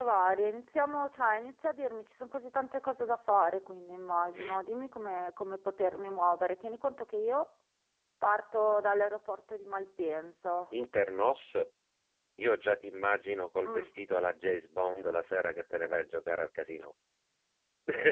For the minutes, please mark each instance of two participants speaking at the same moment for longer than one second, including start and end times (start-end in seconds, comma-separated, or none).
none